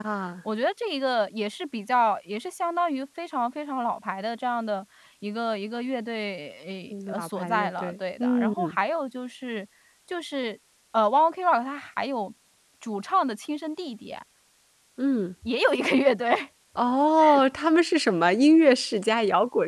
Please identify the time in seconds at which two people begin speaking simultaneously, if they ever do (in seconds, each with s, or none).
6.9 s